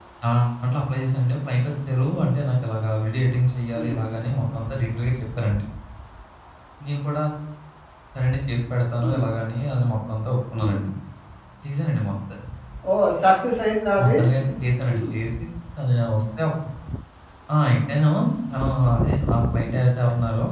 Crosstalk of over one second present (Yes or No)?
No